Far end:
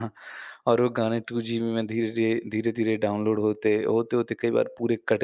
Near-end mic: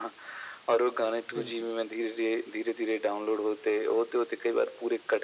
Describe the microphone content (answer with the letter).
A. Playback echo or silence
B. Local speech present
B